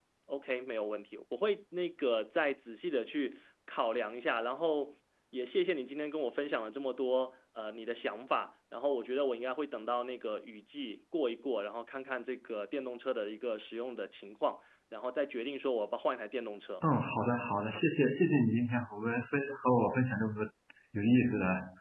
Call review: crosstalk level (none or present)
none